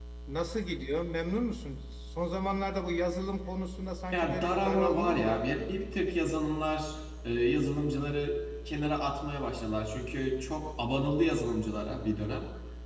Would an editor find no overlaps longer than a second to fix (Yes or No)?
No